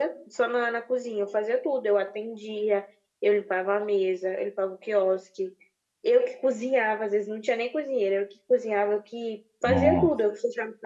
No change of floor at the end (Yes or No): Yes